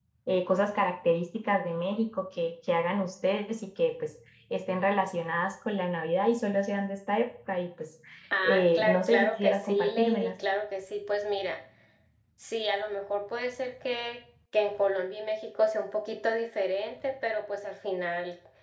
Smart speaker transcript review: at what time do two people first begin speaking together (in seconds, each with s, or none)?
8.4 s